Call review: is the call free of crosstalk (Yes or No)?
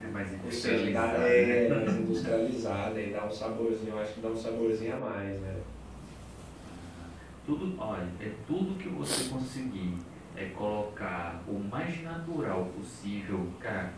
No